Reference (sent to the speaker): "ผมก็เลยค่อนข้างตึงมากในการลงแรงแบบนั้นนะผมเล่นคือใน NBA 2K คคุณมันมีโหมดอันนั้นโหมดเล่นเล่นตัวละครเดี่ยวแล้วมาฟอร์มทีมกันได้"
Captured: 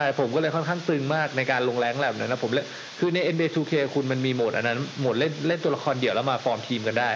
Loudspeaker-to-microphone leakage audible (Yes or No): Yes